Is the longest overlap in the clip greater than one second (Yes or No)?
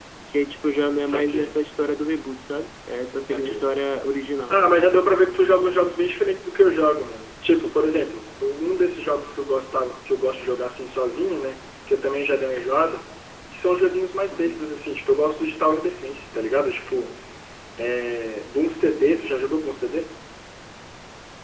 No